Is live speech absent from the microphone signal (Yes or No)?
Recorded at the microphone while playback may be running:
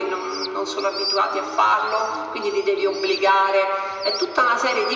Yes